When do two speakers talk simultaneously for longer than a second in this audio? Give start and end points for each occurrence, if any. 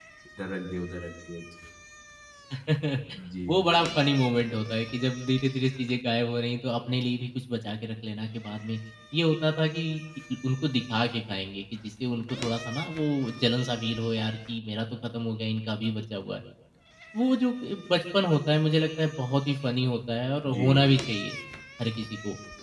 none

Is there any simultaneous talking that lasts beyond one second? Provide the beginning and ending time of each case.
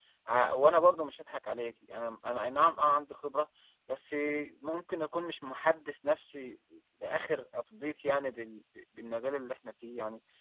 none

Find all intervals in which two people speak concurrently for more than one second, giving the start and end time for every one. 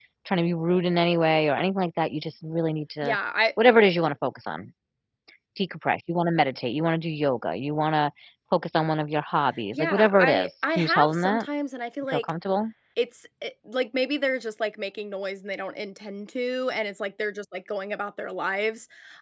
9.7-11.4

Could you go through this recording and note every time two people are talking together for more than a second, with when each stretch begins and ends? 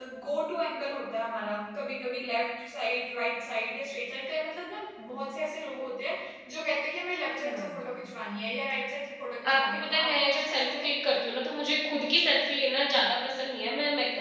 9.5-10.9

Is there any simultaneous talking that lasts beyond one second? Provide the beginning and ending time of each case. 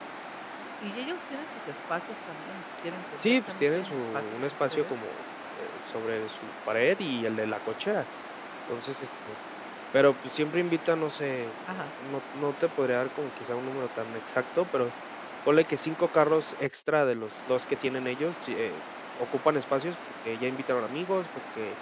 3.2-4.9

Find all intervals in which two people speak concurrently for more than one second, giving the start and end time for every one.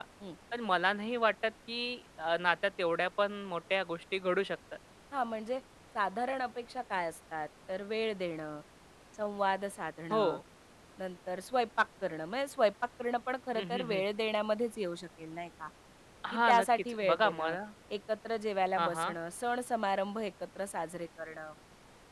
16.3-17.6

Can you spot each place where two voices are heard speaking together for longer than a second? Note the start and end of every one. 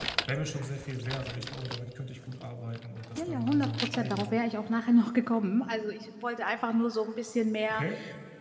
3.1-4.4

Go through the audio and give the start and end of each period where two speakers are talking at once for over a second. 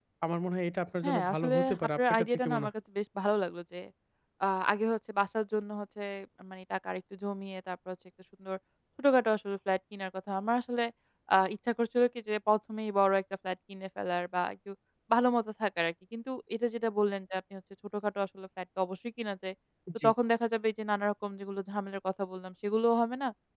1.0-2.7

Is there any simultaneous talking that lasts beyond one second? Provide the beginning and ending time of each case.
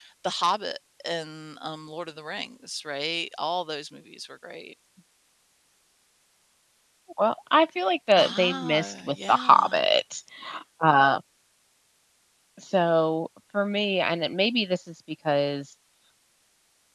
8.2-9.7

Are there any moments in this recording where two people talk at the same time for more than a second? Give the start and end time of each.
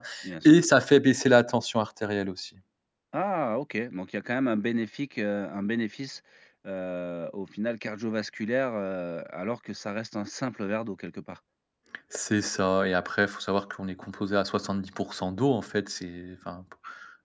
none

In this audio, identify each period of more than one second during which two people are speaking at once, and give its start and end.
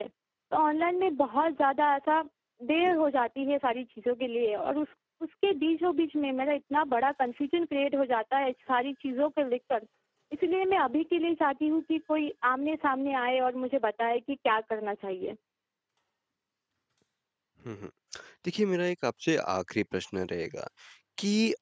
none

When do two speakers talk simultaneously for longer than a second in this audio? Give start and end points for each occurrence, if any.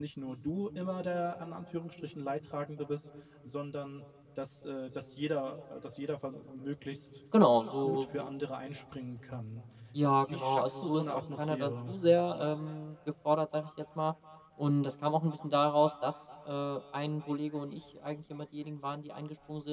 10.3-11.9

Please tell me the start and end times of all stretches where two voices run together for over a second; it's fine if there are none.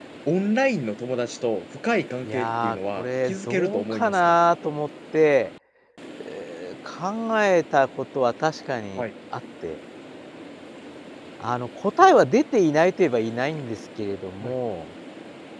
2.2-4.3

